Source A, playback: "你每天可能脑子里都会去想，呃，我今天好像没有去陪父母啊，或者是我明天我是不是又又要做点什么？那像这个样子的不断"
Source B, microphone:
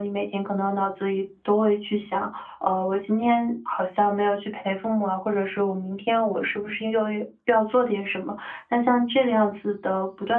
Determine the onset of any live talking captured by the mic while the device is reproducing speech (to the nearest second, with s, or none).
none